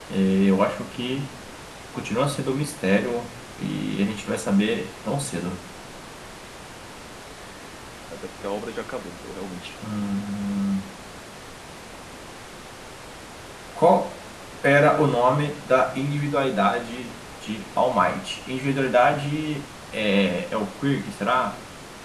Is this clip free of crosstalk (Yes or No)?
Yes